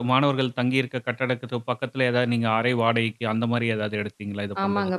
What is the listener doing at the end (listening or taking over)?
taking over